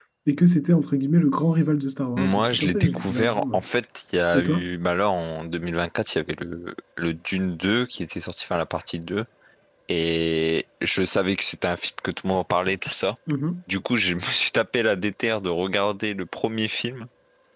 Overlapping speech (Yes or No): Yes